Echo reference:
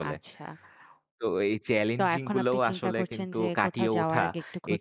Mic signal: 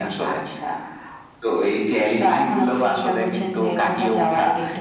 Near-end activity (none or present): none